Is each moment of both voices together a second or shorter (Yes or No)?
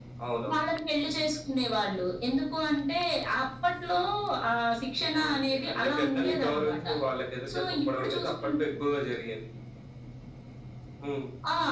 No